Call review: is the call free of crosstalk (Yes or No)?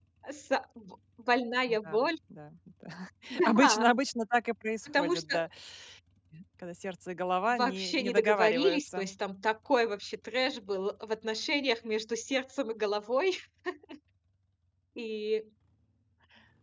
No